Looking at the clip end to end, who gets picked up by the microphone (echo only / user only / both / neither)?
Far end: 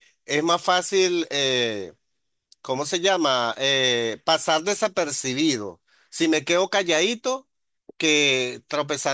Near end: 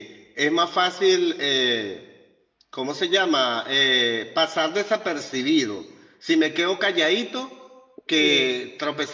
both